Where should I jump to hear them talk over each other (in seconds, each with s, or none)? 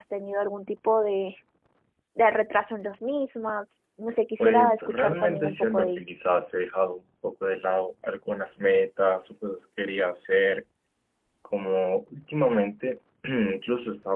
4.4 s